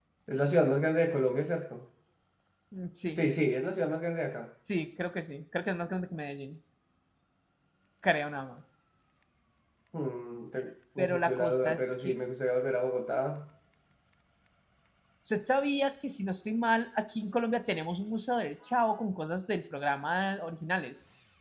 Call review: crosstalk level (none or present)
present